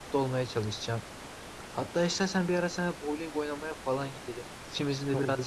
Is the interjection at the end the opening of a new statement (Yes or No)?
No